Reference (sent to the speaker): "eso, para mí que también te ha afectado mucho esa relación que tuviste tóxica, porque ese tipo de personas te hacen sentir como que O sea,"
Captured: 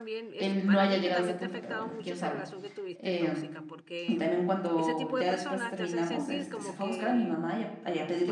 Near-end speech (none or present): present